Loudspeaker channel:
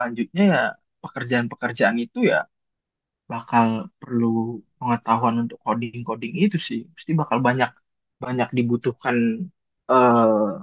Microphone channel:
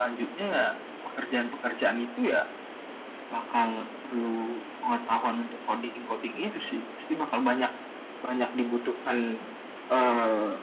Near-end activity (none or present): none